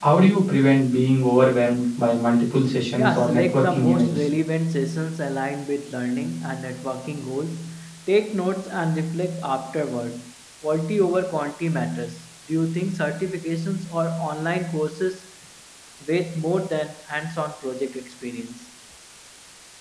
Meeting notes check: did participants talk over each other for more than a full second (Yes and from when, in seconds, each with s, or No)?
Yes, from 3.0 s